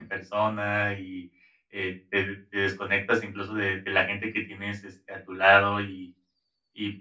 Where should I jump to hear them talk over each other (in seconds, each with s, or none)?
none